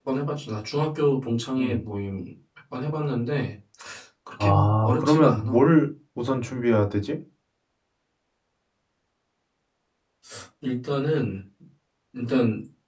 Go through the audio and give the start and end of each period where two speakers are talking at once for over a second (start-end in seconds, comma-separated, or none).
4.4-5.6